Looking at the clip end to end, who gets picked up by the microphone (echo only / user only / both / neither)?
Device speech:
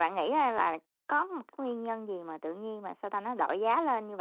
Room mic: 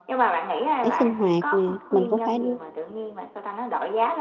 both